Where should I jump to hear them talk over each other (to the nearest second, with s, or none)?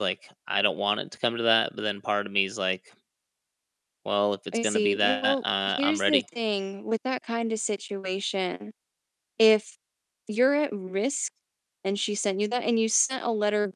5 s